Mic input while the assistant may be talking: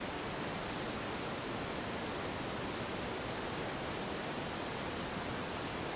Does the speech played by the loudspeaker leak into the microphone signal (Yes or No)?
No